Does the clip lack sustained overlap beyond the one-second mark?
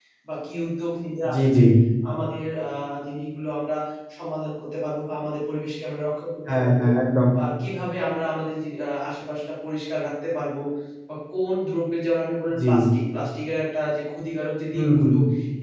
Yes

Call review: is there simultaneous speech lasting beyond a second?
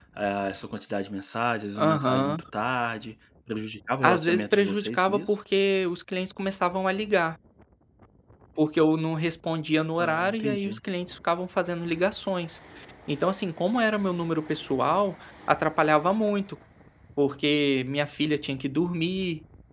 Yes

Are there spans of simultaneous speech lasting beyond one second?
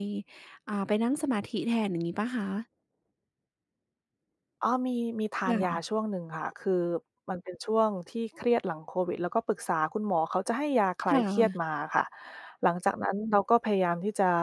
No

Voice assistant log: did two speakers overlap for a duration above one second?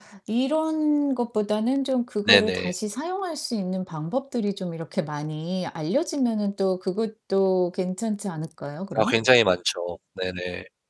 No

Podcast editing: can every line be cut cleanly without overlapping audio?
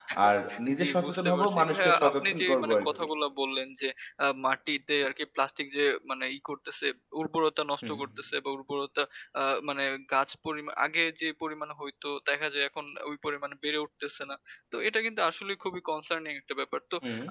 No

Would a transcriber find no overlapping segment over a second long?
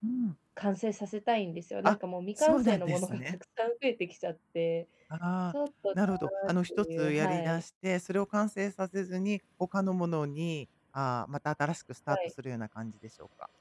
No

